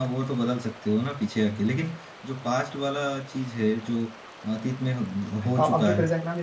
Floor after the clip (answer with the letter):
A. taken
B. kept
A